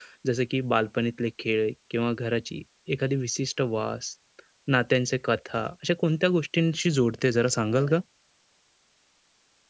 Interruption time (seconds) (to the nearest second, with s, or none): none